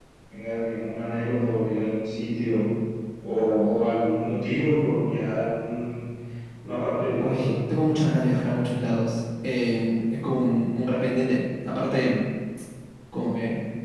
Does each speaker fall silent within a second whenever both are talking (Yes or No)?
Yes